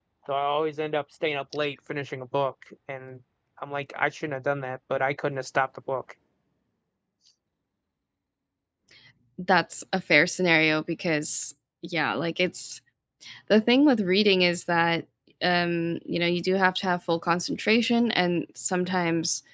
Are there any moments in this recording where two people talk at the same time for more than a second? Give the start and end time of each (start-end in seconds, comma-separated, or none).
none